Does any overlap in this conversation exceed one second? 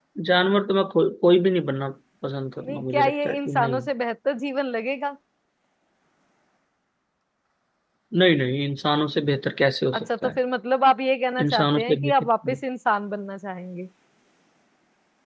Yes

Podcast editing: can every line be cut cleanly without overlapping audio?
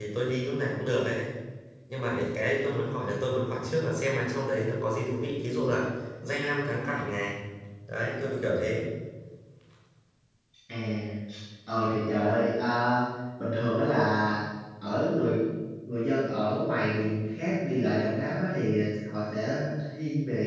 Yes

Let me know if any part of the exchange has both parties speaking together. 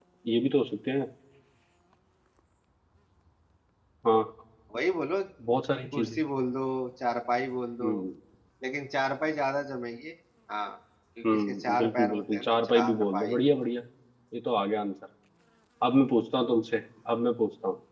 Yes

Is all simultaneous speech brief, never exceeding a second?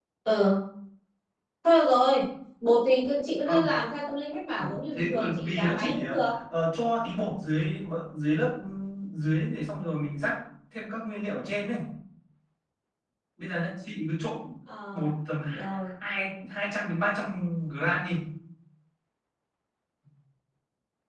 No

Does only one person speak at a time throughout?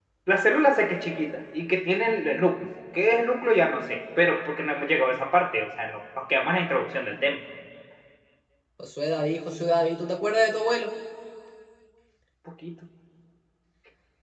Yes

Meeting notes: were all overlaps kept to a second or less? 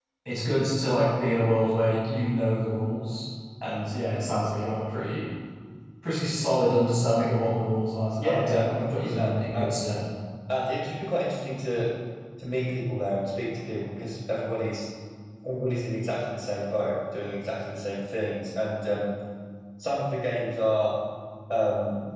No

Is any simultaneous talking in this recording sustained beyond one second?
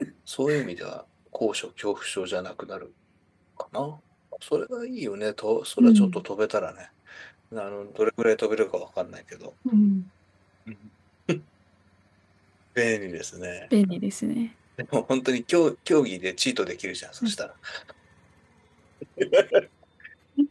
No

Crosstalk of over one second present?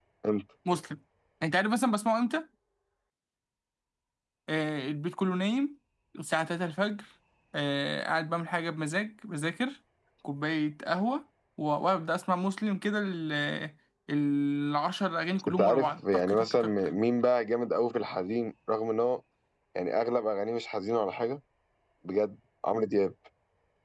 Yes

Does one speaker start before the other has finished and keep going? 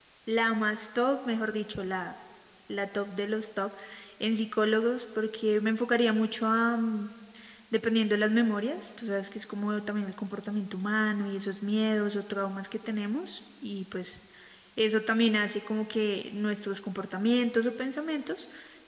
No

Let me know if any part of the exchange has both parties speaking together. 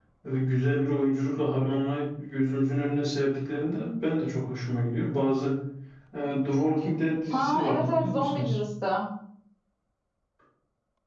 Yes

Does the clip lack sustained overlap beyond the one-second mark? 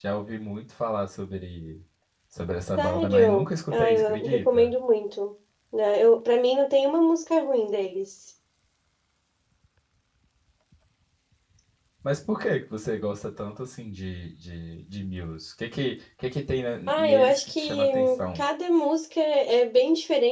No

